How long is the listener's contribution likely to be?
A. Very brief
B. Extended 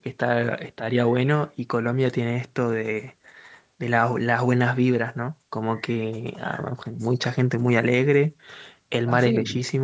A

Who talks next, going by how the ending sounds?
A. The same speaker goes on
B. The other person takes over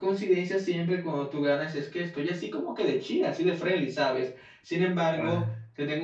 A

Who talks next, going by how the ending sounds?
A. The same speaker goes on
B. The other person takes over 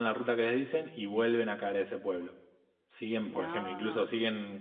A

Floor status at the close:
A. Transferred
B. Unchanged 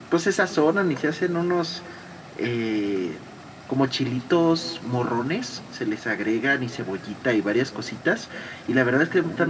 B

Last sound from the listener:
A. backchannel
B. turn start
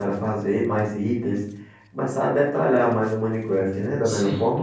B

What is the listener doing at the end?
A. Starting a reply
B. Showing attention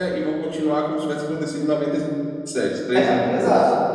A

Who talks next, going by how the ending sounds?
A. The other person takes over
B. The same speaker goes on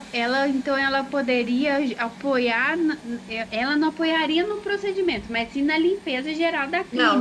A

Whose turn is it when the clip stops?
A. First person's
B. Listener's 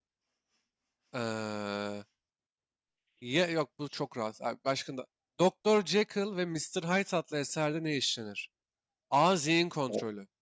A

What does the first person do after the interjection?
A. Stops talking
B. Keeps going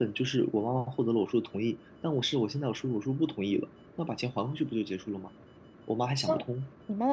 A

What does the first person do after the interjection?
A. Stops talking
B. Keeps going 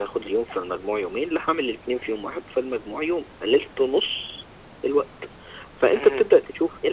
B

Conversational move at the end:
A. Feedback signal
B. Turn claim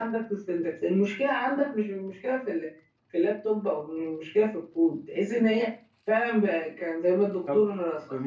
B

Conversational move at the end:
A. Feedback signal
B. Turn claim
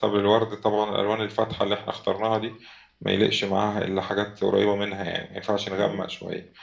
A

